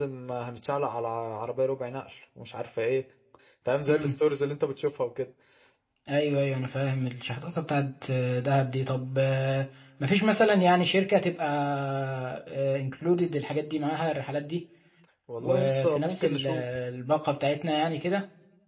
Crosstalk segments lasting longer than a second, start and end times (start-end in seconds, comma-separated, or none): 15.4-16.6